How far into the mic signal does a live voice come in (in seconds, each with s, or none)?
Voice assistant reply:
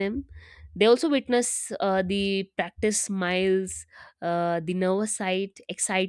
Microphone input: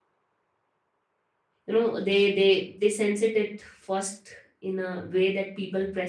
1.6 s